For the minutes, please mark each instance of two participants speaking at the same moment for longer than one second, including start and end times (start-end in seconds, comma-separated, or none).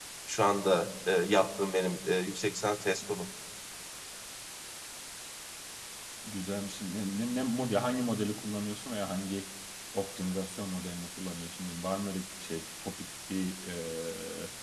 none